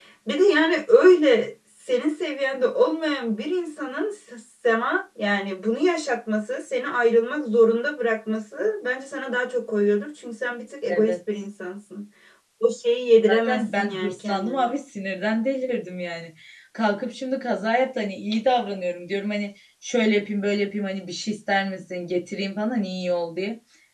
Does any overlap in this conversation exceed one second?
Yes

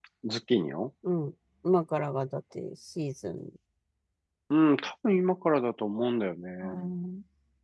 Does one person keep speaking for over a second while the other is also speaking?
No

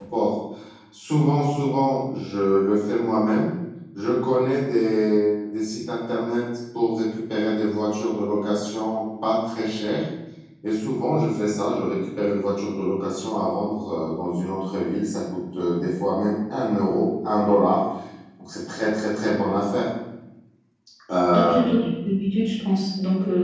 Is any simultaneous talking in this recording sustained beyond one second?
No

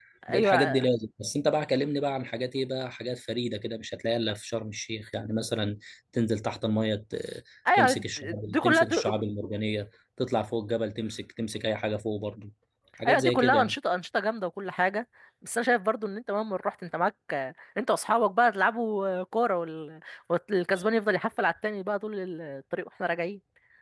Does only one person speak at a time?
No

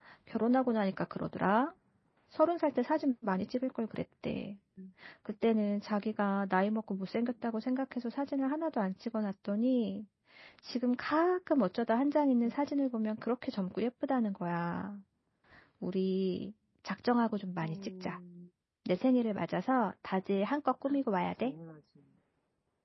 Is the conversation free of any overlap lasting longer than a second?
Yes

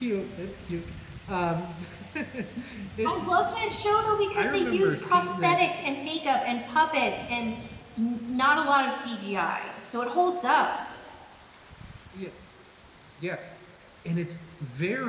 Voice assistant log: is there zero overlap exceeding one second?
No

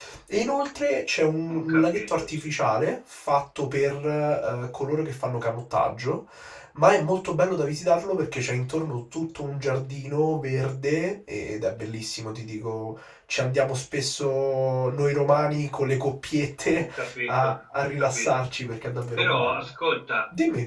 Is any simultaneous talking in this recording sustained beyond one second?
Yes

